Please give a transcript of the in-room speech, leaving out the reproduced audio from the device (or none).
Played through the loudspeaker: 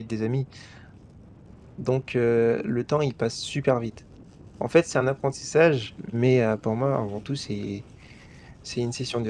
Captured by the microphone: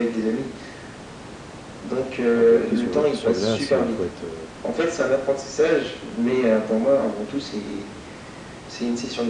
Pour faire du hockey sur, heu, sur glace, heu, il faut être, heu,